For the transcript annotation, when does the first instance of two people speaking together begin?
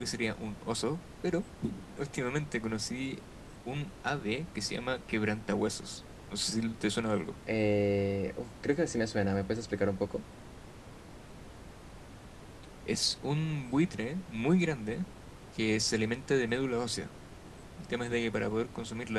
none

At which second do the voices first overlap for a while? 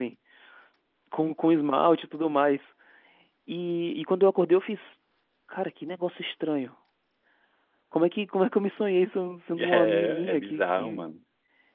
10 s

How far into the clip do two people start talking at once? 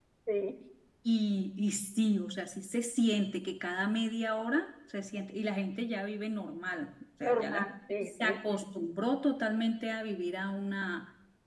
7 s

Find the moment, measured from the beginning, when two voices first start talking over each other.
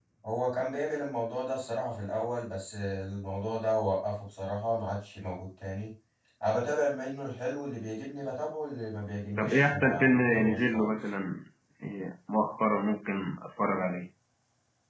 9 s

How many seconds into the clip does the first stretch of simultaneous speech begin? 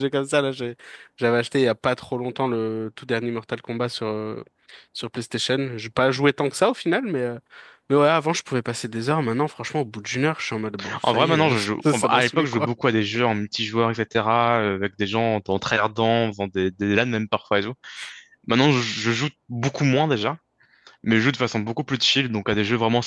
11 s

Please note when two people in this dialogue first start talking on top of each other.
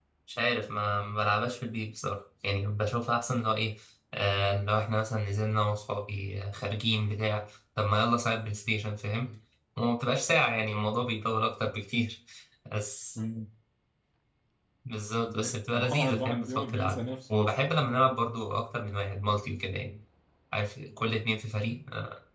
15 s

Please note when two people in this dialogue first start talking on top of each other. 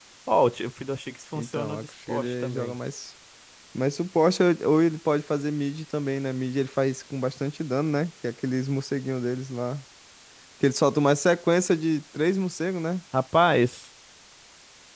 1 s

